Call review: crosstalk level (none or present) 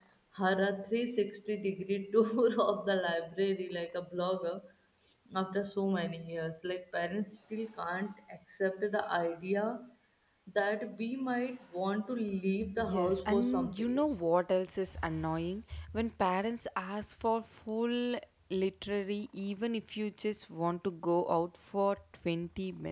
present